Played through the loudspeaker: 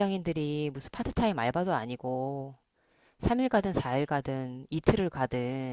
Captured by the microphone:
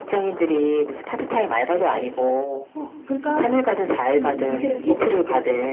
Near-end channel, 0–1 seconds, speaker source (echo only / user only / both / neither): echo only